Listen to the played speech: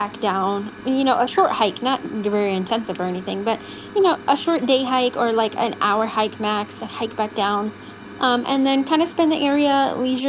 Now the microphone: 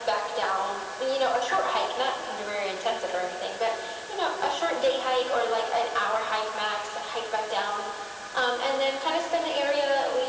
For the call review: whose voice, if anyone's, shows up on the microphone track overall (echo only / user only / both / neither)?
echo only